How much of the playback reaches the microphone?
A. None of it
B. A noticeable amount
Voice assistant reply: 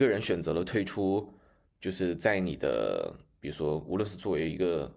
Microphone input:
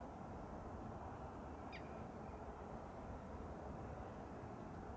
A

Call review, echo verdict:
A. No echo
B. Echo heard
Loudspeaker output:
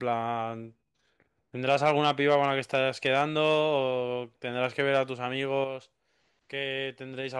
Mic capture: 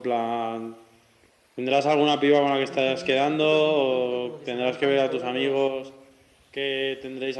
B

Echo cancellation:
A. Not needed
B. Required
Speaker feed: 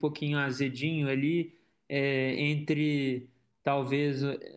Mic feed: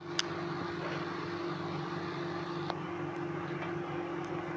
A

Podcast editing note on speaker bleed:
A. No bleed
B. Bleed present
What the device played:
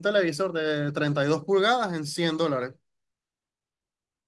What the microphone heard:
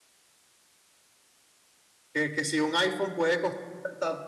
A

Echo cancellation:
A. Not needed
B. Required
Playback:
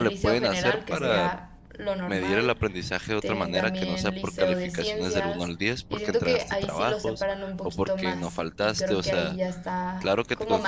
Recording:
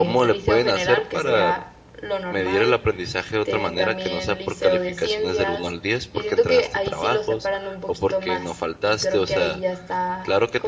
B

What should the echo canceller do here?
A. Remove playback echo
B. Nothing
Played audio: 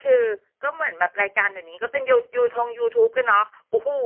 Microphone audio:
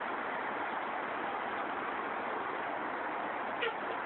B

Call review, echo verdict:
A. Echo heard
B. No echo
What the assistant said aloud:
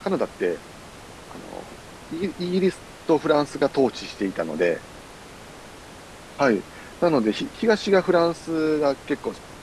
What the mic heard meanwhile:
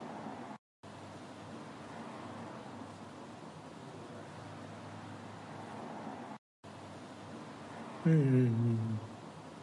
B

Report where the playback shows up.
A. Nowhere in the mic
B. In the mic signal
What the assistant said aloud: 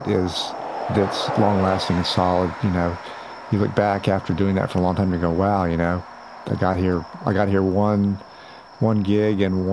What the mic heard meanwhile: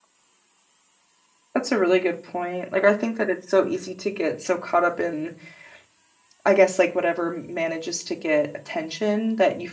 A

